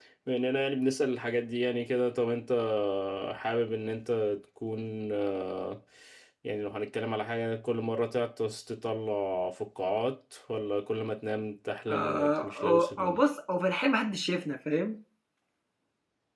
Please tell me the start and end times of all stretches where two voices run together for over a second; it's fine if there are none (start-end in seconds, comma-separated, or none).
11.9-13.2